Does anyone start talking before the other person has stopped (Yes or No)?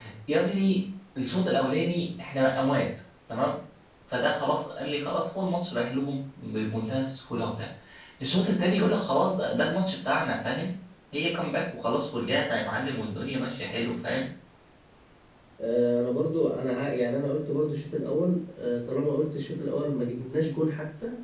No